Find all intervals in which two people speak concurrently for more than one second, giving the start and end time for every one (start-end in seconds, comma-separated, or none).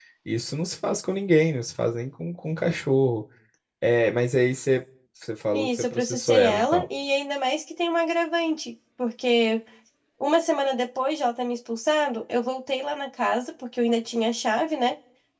5.5-6.9